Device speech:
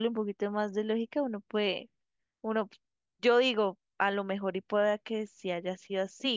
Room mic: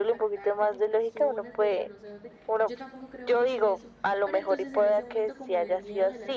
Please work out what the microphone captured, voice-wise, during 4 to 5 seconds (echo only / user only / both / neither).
both